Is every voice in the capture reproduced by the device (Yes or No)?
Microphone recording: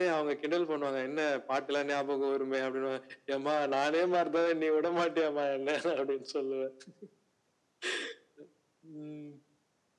Yes